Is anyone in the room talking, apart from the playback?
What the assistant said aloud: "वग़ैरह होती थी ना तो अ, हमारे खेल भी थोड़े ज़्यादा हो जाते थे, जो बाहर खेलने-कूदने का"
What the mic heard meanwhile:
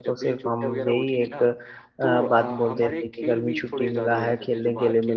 Yes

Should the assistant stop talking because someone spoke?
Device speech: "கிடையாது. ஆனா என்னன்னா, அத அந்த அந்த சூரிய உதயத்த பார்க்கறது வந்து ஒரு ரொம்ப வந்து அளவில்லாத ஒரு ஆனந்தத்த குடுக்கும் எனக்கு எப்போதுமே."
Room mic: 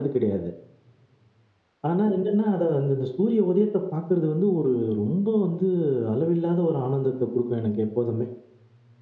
No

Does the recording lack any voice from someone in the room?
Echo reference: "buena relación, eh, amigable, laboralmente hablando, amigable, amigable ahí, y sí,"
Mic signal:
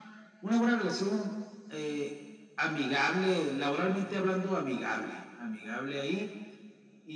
No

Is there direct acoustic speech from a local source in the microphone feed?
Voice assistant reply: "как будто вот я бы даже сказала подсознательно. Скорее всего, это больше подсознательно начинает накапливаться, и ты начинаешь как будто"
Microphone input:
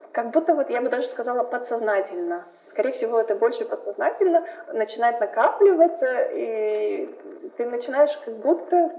No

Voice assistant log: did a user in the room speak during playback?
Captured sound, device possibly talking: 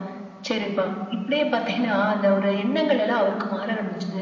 No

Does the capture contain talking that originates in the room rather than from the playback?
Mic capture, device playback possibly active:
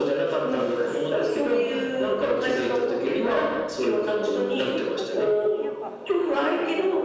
Yes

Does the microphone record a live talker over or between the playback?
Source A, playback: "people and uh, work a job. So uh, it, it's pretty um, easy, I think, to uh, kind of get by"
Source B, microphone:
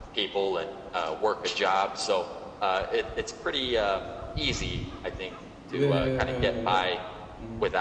Yes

